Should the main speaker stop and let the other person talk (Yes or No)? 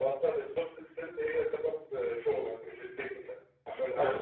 No